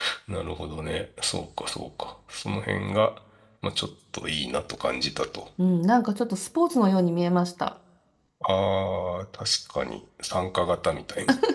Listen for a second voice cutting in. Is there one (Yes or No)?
No